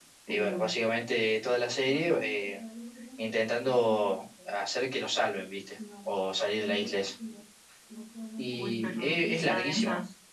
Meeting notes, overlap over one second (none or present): present